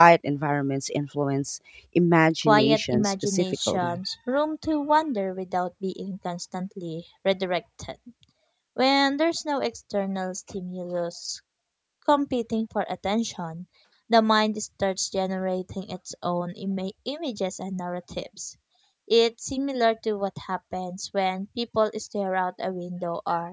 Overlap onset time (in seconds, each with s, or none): 2.5 s